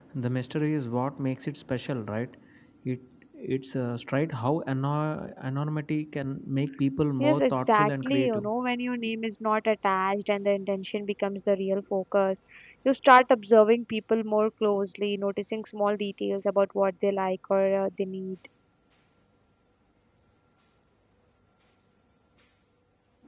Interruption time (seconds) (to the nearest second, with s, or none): 7 s